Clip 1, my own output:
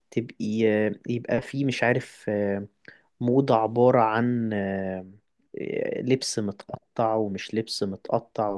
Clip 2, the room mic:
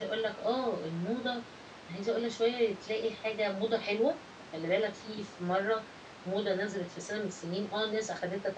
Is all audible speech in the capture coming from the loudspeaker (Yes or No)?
No